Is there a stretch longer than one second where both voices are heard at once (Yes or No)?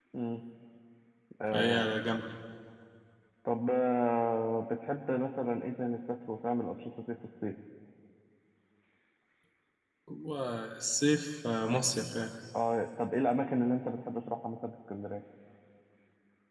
No